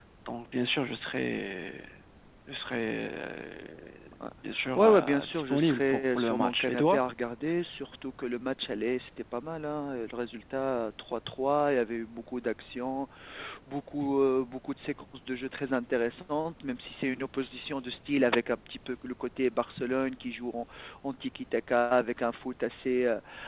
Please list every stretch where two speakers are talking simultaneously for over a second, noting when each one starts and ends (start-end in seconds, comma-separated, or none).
4.8-7.0